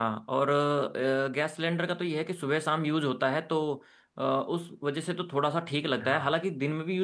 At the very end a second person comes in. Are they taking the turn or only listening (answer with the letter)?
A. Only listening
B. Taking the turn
A